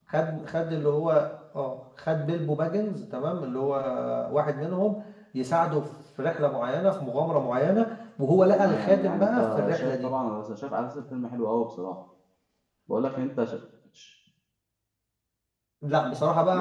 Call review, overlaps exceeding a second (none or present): present